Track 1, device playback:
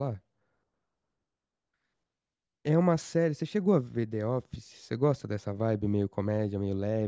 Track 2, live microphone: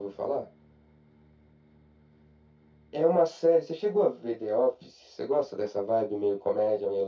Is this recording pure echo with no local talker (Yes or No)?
Yes